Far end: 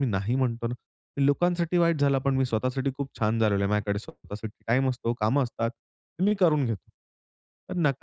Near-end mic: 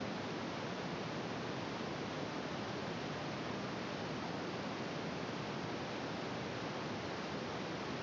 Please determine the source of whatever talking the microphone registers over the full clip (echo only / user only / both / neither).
neither